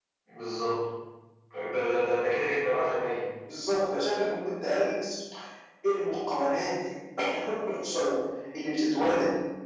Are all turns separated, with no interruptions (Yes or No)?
Yes